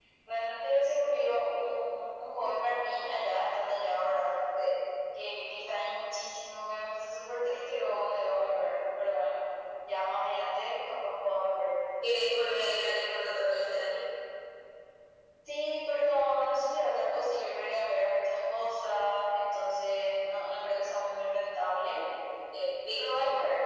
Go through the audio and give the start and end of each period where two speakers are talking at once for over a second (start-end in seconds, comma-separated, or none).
none